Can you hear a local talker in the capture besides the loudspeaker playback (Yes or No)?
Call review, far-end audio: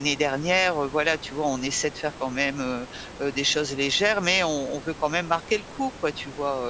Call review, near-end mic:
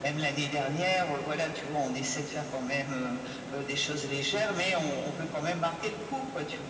No